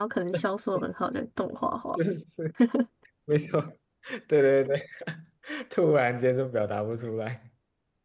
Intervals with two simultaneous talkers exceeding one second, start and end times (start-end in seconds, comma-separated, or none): none